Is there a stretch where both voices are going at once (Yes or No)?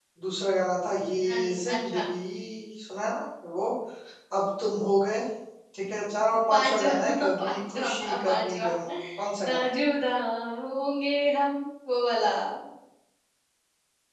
Yes